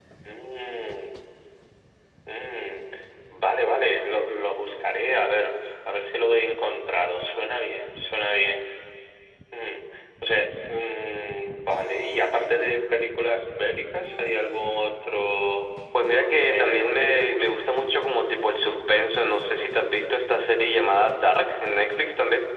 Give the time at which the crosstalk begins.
16 s

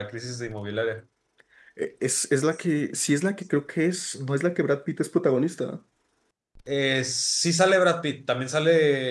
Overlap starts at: none

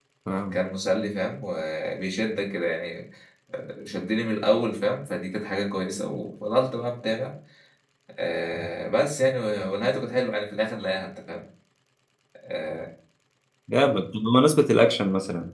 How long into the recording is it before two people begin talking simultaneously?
none

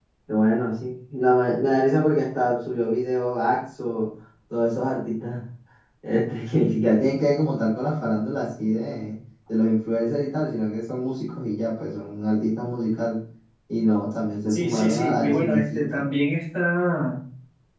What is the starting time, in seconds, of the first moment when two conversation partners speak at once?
14 s

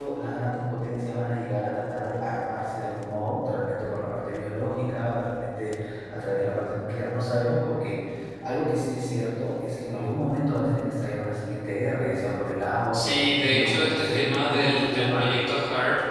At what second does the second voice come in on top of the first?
13 s

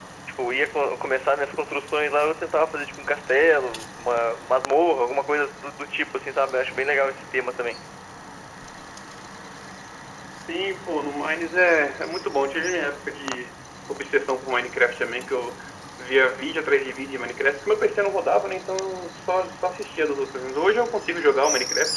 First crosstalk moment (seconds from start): none

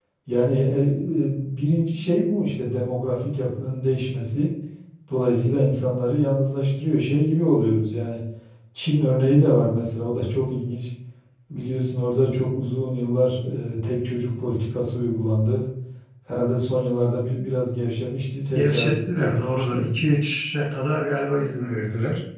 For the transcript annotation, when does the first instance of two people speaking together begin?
19 s

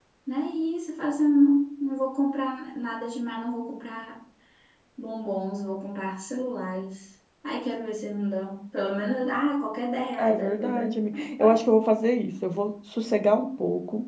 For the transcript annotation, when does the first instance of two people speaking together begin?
10 s

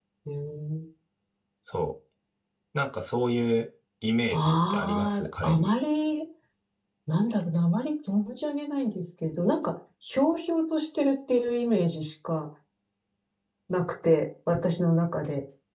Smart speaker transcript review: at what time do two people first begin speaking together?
4 s

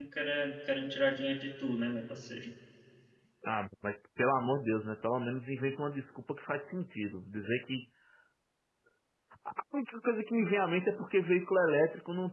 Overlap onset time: none

